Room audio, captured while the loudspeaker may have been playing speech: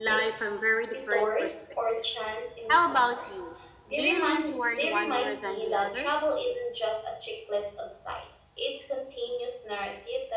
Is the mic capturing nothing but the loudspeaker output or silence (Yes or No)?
No